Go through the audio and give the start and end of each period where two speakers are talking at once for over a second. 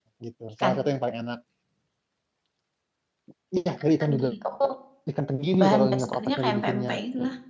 5.6-6.9

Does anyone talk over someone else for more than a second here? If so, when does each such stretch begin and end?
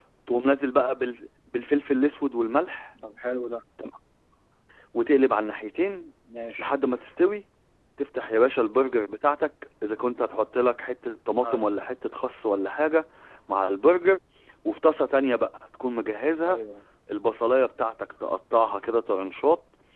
none

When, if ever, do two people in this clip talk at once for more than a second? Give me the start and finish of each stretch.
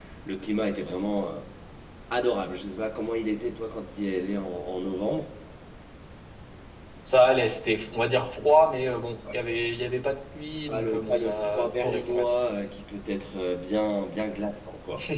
10.7-12.3

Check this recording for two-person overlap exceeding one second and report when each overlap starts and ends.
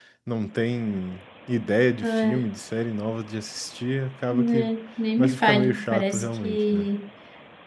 5.2-6.9

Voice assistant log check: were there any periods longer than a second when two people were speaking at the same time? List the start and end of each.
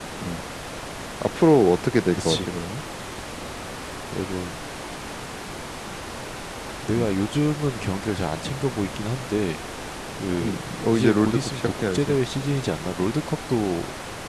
10.9-12.2

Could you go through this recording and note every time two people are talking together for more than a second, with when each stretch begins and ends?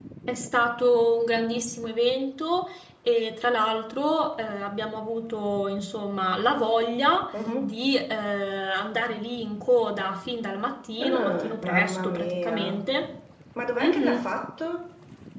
11.0-12.8

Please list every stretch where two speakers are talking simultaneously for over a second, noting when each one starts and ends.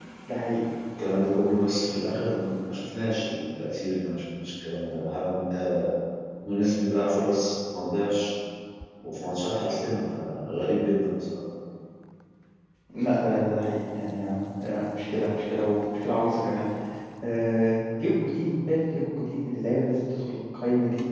none

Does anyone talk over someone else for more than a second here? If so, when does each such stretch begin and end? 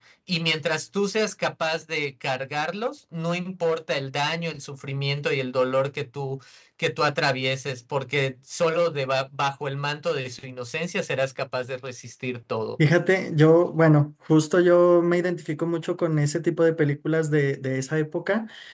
none

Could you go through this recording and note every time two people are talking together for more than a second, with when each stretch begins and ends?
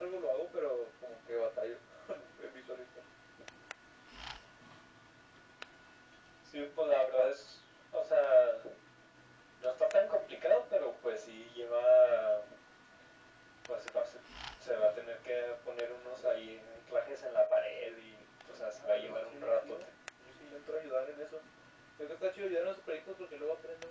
18.5-19.8

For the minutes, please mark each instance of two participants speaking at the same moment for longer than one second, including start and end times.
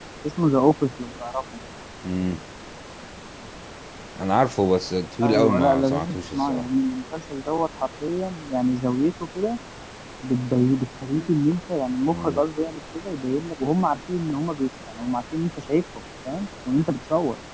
5.2-6.7

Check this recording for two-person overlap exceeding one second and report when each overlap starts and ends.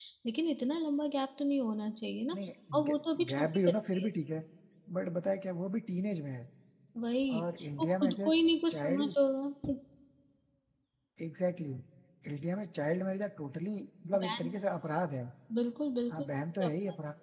2.7-4.1

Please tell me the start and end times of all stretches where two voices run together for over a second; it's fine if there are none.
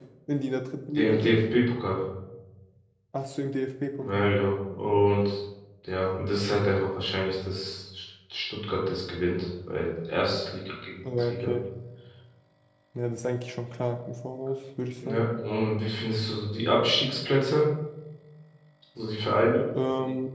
none

